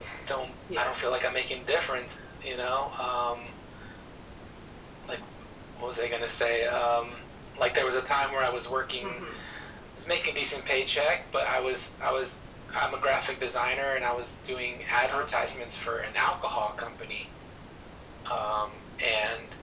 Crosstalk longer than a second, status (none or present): none